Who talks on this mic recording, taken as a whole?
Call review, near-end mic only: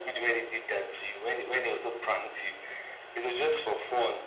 echo only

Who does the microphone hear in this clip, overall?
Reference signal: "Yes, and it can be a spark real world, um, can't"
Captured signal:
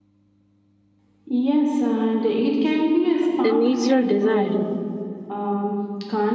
both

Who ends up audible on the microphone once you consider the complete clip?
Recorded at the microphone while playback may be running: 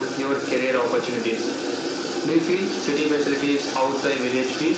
echo only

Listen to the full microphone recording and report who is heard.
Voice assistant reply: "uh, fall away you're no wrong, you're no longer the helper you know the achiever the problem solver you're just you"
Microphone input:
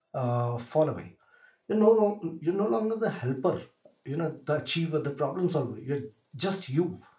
echo only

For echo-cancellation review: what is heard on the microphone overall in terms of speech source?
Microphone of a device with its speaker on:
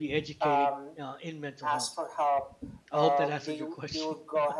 both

